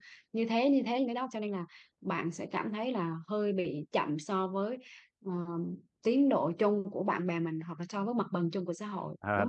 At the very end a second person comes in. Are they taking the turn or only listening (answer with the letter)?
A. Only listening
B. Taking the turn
B